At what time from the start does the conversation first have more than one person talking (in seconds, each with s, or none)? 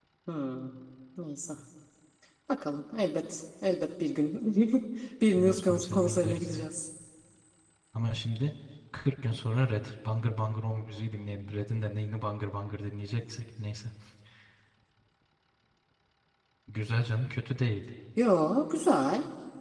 5.4 s